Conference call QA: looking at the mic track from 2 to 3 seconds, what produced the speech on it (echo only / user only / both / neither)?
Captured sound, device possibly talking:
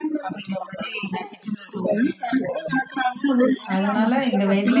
echo only